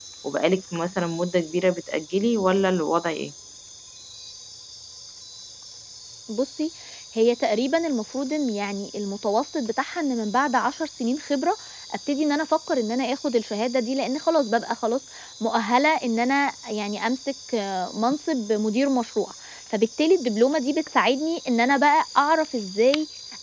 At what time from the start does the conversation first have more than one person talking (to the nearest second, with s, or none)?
none